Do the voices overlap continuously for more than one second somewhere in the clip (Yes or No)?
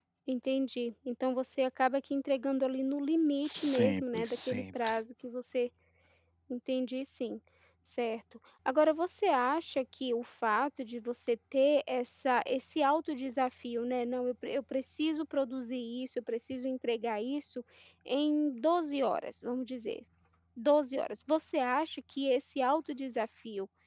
Yes